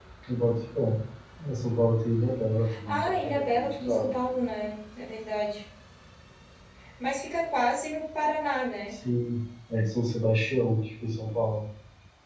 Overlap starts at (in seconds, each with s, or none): 2.6 s